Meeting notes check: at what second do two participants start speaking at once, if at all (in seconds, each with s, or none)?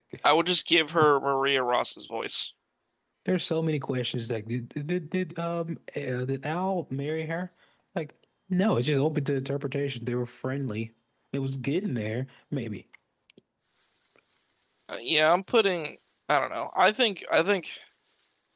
none